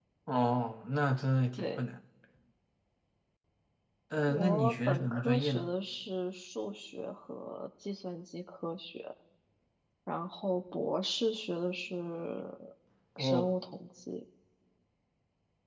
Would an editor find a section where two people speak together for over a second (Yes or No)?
Yes